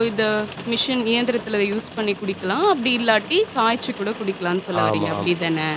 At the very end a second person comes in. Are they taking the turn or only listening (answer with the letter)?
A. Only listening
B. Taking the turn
B